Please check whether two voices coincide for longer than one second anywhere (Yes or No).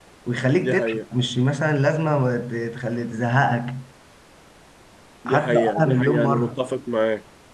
Yes